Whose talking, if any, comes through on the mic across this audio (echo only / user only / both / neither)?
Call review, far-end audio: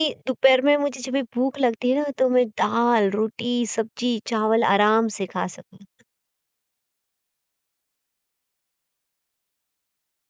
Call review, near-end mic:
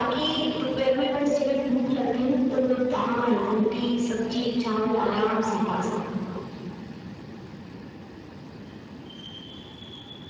echo only